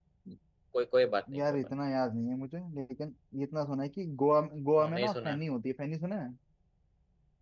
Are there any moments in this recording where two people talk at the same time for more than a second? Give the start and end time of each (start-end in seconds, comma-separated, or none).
none